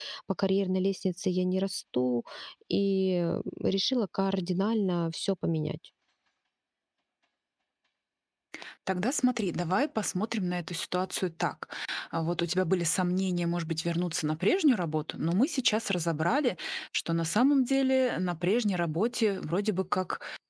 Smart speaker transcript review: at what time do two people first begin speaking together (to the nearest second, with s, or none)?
none